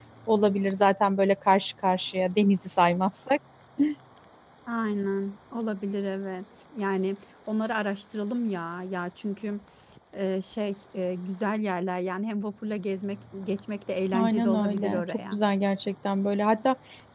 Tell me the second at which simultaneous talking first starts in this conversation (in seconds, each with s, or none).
14.1 s